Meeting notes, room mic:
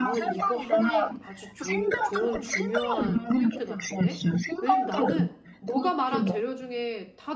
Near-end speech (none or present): present